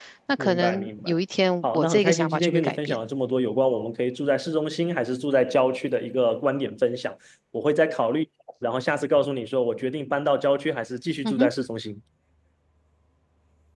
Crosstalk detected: Yes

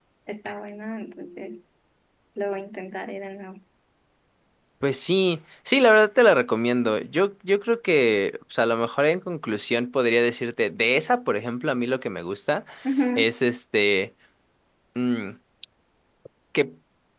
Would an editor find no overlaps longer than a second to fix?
Yes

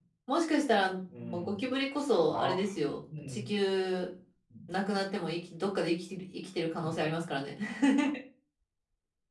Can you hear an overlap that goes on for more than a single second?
No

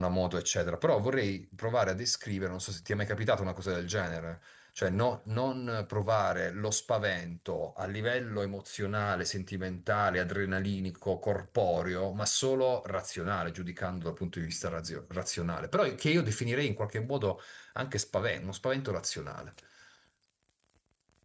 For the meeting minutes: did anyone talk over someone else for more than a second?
No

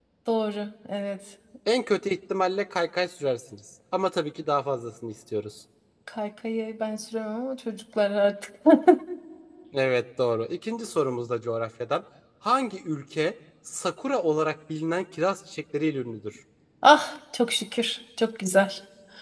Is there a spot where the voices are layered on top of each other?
No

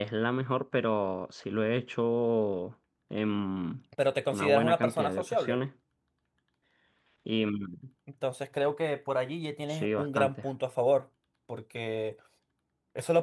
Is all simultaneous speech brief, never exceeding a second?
No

